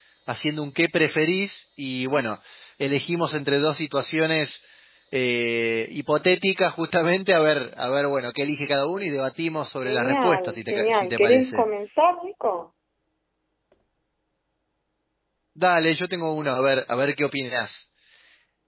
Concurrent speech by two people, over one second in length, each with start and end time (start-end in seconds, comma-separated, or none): 9.8-11.6